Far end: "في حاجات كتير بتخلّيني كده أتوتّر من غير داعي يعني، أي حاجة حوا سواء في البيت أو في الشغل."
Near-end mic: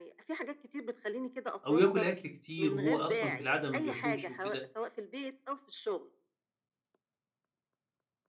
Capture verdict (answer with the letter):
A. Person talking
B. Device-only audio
A